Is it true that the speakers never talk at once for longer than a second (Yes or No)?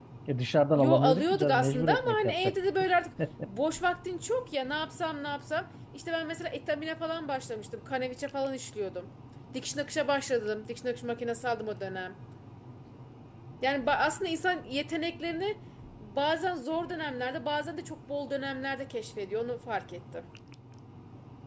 No